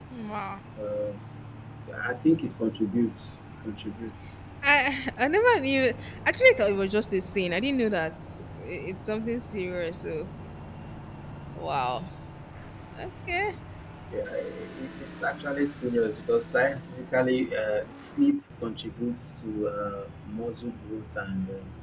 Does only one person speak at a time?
Yes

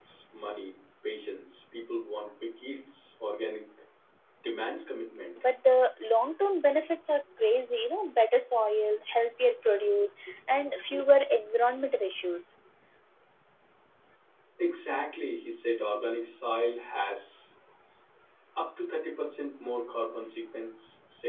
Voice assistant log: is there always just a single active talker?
Yes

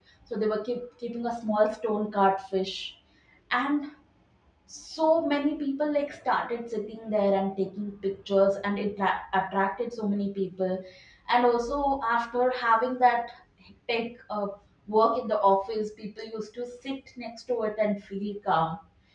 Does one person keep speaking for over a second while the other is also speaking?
No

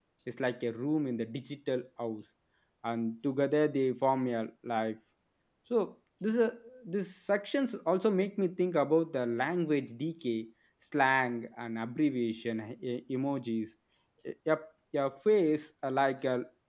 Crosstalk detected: No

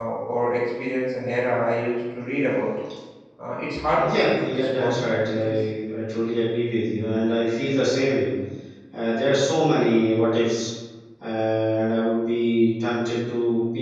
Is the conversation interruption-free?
No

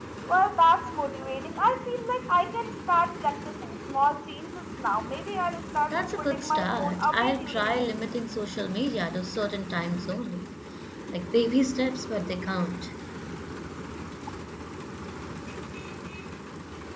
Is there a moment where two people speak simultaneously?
Yes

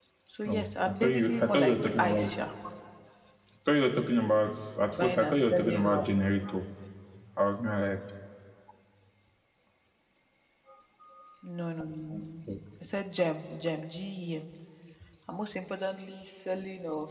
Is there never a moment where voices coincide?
No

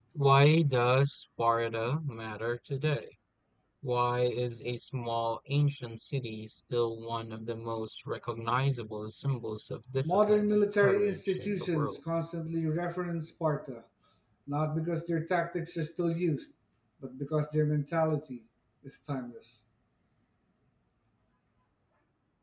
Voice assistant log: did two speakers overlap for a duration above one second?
Yes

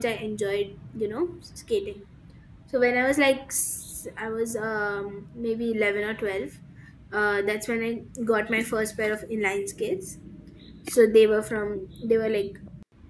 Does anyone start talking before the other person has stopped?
No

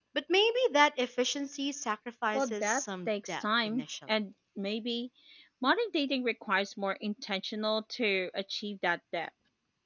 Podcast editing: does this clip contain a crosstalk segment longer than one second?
Yes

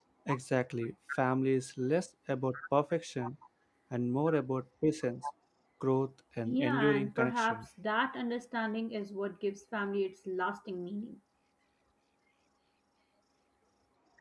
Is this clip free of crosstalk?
No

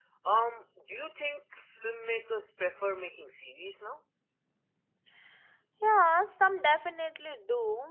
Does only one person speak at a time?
Yes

